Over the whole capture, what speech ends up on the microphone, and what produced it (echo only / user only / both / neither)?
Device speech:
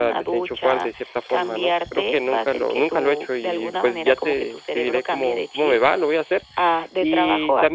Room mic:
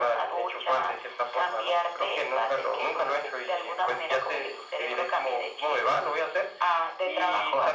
echo only